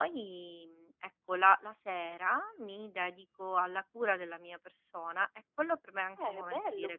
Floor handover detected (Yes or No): Yes